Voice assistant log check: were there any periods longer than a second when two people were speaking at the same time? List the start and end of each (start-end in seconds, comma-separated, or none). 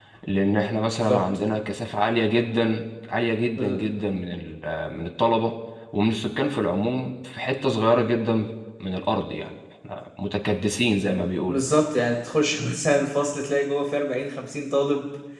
none